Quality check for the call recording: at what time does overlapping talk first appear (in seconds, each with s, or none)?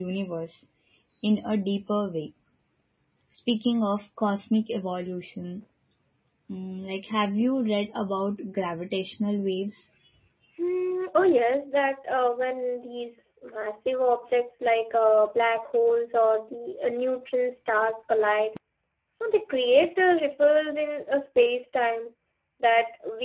none